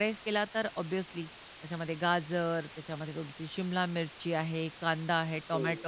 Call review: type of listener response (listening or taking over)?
listening